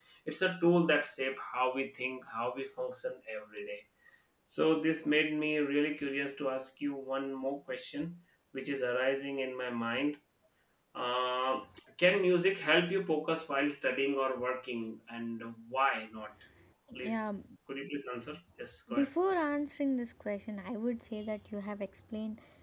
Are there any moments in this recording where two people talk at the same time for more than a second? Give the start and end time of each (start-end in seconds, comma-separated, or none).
none